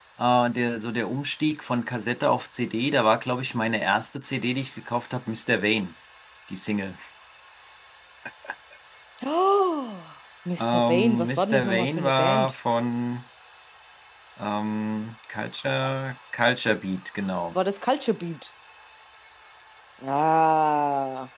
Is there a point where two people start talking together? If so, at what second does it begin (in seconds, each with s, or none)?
10.6 s